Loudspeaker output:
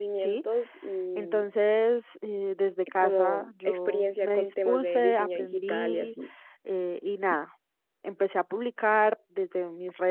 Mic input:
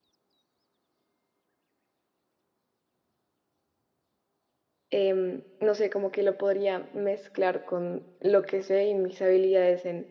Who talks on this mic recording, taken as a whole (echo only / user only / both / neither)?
user only